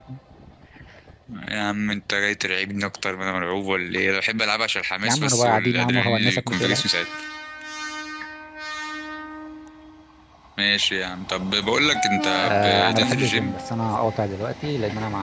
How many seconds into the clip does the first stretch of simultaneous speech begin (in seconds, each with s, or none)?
5.0 s